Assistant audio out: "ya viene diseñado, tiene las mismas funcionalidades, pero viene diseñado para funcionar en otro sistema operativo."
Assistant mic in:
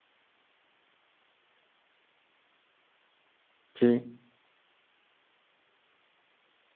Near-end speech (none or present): present